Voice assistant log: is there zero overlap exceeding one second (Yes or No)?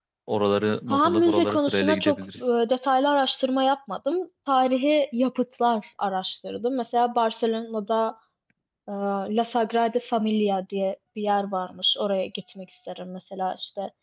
No